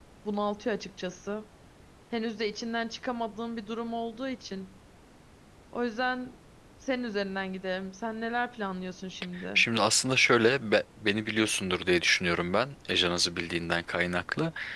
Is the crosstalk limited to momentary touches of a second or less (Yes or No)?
Yes